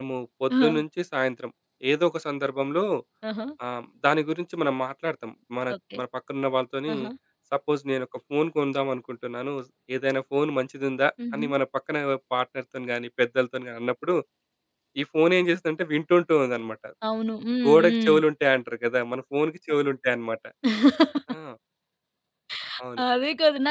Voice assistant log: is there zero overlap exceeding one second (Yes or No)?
Yes